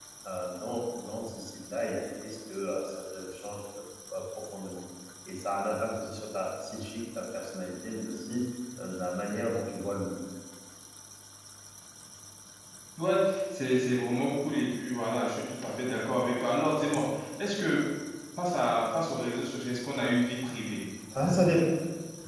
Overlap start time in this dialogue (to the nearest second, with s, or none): none